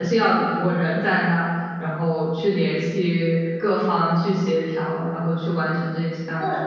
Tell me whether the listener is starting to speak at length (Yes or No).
Yes